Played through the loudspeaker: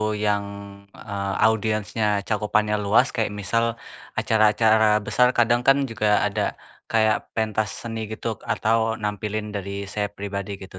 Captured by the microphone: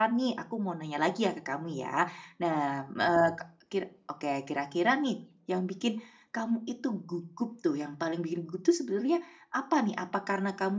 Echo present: No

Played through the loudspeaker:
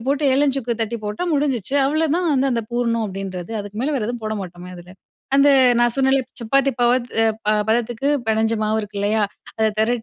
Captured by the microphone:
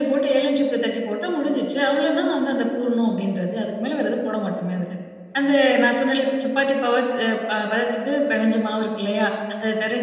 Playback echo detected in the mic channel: Yes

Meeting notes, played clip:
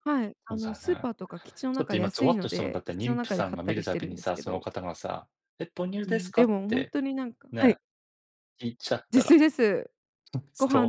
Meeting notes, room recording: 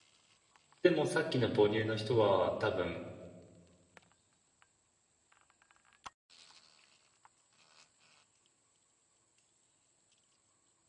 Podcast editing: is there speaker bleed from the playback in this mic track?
No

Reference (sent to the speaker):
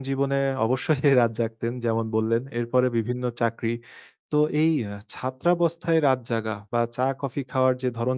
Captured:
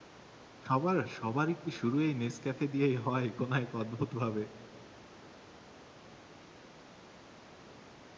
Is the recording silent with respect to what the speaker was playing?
Yes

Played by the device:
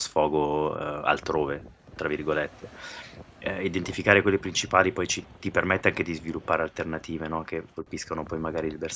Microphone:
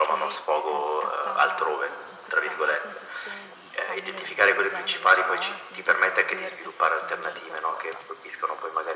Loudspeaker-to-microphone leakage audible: Yes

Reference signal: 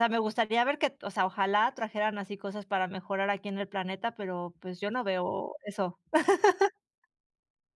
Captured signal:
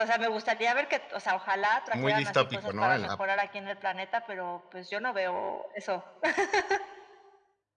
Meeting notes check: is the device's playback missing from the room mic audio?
No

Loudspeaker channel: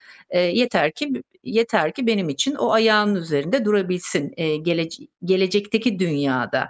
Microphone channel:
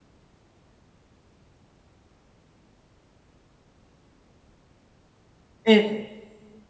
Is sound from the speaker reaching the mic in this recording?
No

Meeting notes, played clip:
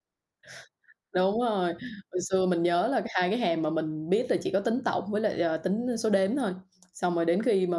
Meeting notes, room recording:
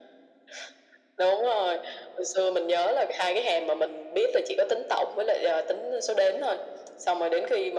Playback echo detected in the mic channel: Yes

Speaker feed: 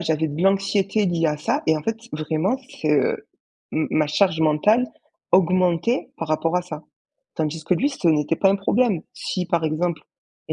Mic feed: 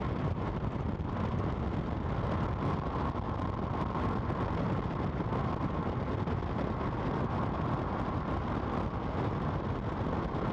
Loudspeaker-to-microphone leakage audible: No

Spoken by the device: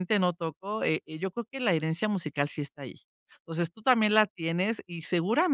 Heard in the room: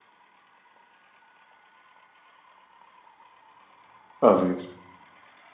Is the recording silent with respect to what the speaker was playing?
Yes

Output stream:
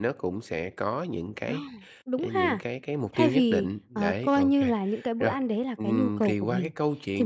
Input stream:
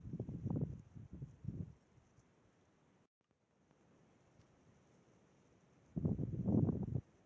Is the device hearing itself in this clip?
No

